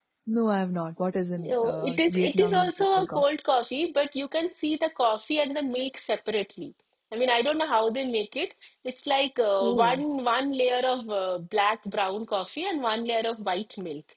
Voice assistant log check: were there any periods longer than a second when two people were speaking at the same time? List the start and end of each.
1.5-3.2

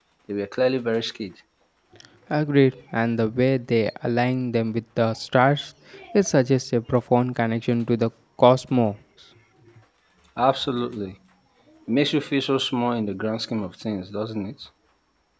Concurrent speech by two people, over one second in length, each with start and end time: none

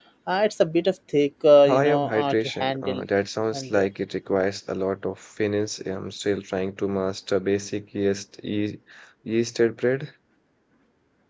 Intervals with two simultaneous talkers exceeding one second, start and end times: 1.7-3.0

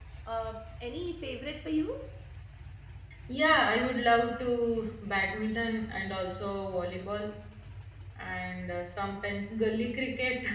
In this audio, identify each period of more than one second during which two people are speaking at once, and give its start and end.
none

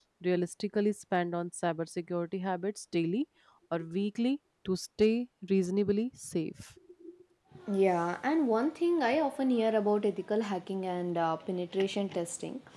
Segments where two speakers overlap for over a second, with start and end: none

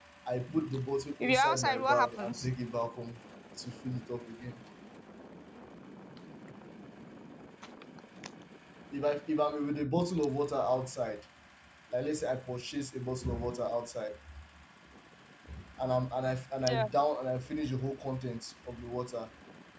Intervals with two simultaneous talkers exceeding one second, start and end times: 1.2-2.5

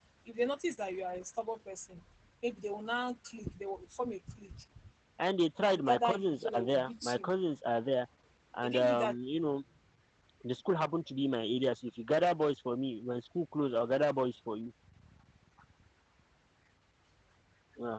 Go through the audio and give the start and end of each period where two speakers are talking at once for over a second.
5.6-7.3

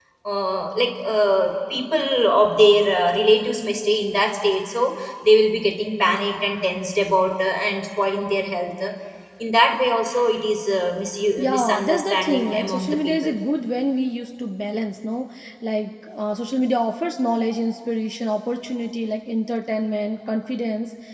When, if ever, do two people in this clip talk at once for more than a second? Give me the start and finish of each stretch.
11.4-13.3

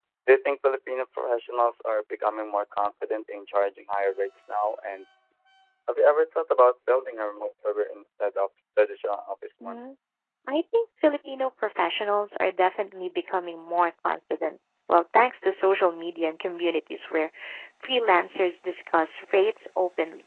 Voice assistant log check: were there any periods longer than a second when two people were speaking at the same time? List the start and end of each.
none

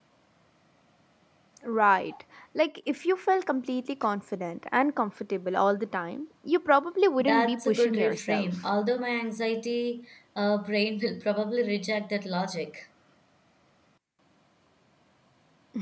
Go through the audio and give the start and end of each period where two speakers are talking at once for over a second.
7.2-8.6

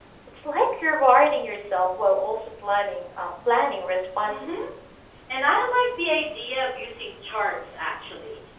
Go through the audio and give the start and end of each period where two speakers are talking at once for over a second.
none

